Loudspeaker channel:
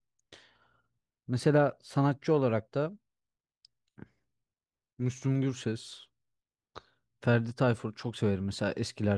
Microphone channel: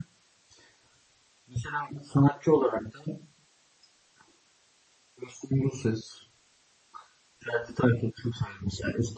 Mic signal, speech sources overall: echo only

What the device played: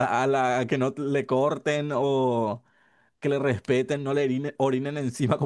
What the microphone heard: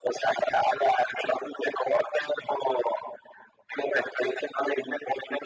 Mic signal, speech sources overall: echo only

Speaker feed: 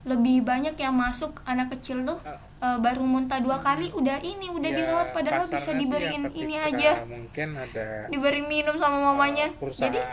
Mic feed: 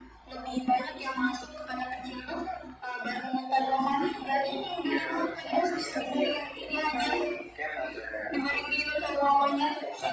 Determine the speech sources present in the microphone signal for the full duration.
echo only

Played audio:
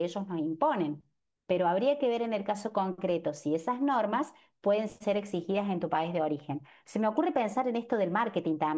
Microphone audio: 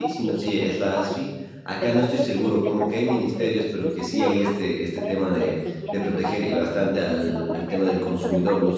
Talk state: both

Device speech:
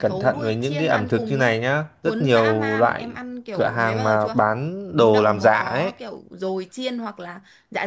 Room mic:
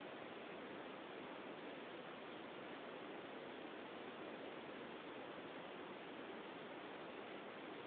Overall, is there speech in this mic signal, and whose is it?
neither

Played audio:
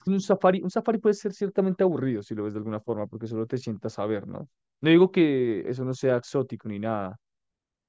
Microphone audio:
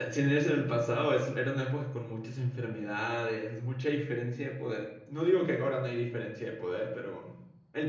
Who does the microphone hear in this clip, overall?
user only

